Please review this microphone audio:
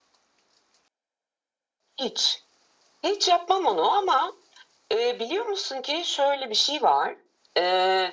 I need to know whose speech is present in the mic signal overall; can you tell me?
echo only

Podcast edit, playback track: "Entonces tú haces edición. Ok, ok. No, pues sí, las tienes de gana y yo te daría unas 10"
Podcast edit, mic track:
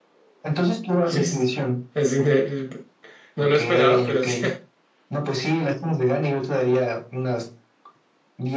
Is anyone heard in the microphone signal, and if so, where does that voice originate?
both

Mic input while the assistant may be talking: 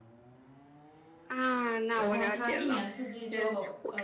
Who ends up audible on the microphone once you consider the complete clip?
both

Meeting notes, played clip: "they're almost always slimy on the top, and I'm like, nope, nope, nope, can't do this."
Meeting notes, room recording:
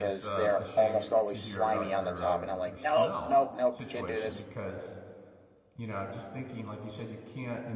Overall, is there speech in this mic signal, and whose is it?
both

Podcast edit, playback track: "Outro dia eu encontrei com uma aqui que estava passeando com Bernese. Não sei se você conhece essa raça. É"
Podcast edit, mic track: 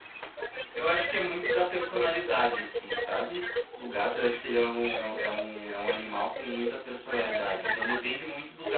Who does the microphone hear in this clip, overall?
both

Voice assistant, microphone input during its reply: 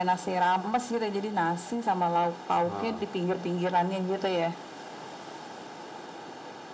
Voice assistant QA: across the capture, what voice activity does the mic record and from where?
both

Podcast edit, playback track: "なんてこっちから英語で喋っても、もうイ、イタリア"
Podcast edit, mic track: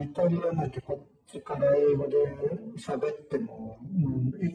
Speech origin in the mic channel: echo only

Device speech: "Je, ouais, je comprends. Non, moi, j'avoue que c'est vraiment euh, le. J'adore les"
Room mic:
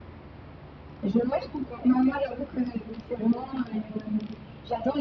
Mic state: echo only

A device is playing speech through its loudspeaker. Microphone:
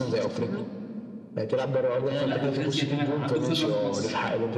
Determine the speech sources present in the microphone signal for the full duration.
both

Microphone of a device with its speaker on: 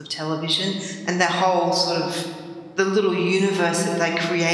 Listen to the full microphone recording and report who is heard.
user only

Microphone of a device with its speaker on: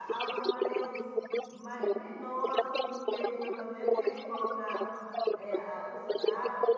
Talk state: both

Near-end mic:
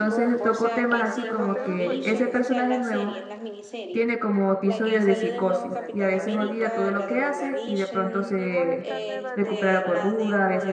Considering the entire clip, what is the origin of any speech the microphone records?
both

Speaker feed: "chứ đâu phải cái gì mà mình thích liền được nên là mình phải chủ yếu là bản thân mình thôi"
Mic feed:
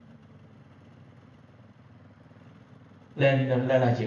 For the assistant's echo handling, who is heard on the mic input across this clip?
user only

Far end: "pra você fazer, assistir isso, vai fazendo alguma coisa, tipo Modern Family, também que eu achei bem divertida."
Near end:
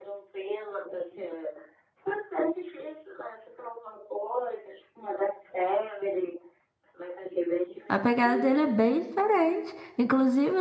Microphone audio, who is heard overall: both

